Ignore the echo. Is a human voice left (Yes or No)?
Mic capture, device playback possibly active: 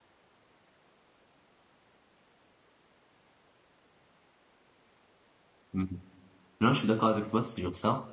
Yes